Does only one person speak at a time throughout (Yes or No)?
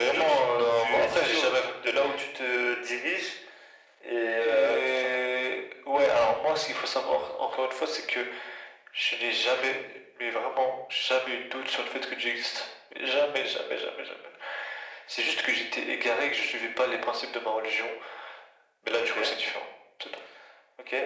No